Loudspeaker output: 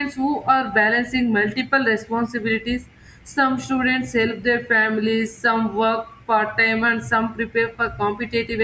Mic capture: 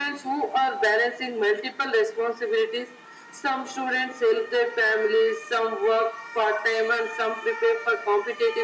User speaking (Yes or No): No